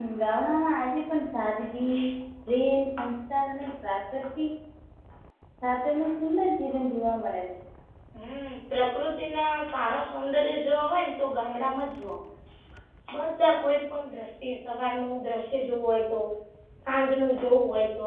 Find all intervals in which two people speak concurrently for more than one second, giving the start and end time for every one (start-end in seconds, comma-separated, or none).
none